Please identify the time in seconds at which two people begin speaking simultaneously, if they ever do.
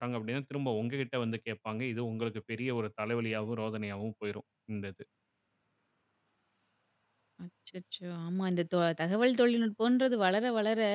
none

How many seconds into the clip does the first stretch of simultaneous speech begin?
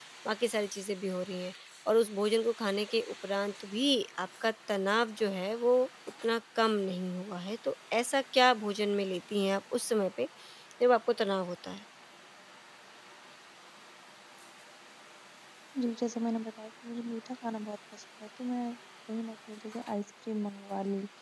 none

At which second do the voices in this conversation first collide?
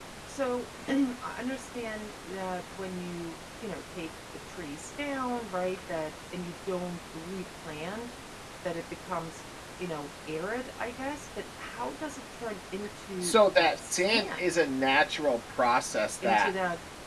13.2 s

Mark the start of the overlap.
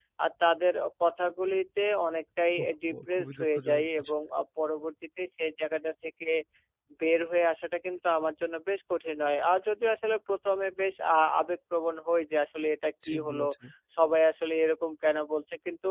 2.6 s

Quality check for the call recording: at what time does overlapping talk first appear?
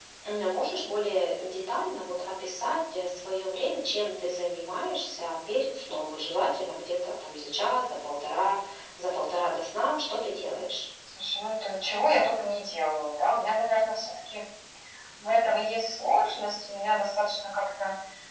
none

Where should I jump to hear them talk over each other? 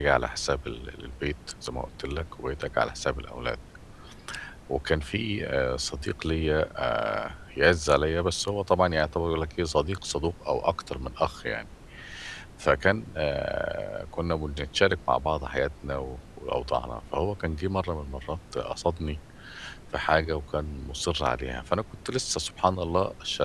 none

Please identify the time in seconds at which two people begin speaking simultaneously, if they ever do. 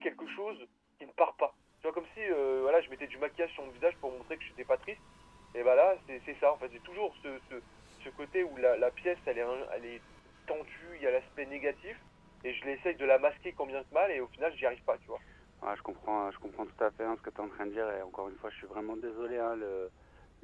none

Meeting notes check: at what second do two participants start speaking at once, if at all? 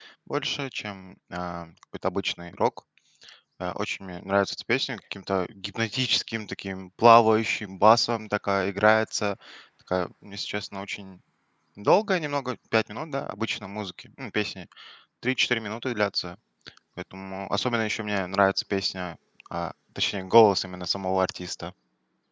none

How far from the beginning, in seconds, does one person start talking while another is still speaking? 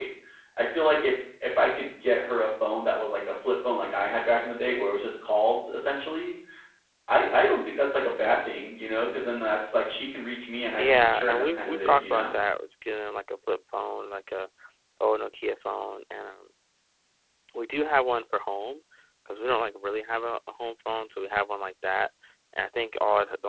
10.8 s

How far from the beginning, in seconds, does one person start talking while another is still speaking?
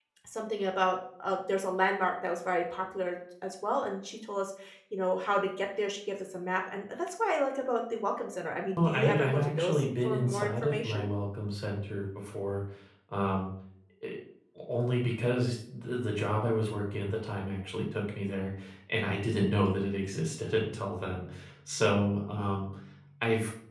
8.8 s

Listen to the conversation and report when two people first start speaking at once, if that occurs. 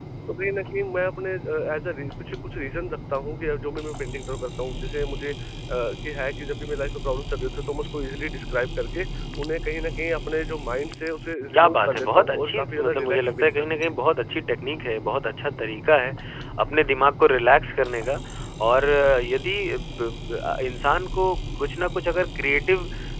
11.5 s

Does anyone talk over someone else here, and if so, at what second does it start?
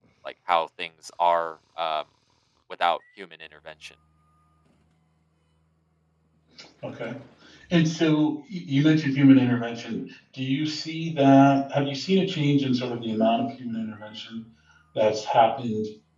none

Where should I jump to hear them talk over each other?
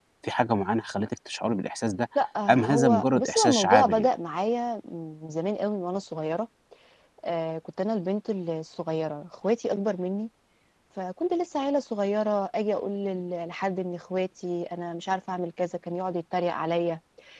2.5 s

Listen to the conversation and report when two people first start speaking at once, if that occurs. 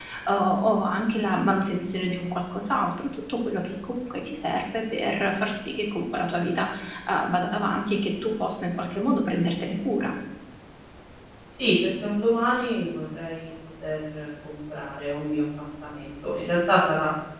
none

